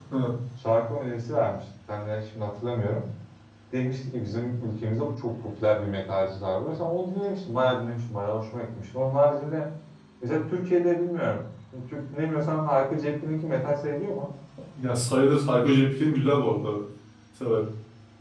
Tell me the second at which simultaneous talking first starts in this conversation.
none

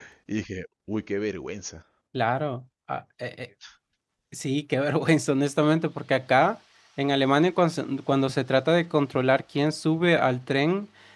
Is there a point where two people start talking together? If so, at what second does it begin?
none

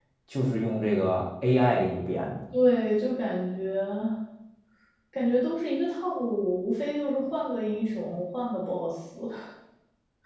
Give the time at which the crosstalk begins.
none

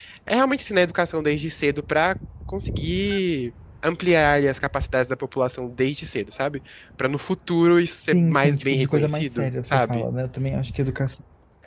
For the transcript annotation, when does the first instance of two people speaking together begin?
8.1 s

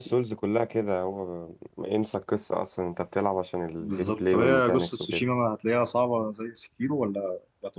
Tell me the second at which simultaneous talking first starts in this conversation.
3.8 s

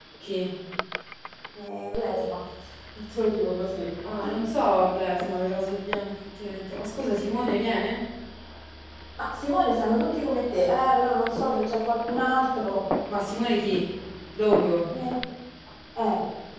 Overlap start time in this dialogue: none

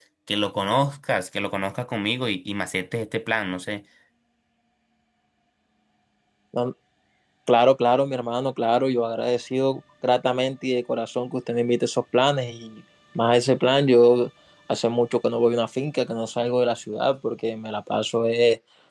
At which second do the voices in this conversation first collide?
none

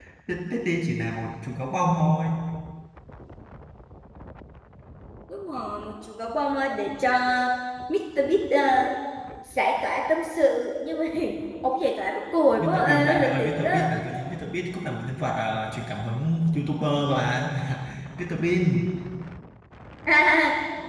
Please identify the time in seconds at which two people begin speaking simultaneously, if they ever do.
12.6 s

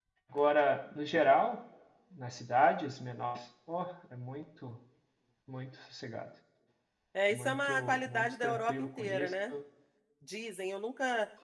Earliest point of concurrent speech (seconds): 7.3 s

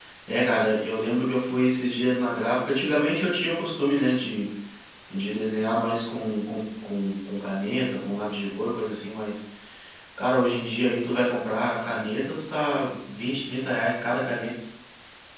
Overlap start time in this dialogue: none

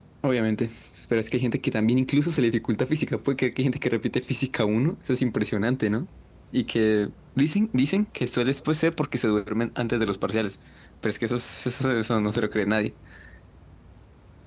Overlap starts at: none

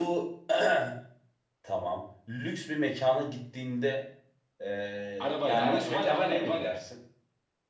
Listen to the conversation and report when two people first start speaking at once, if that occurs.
5.2 s

